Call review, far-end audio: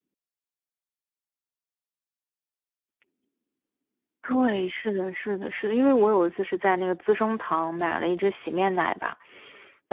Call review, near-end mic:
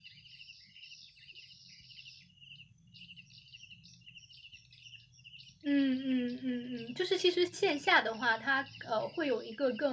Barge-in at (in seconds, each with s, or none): 5.6 s